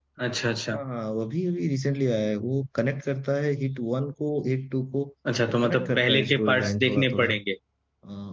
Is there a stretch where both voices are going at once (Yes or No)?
Yes